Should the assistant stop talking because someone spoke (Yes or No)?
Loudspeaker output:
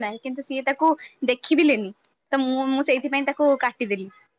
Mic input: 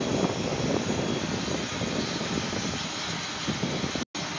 No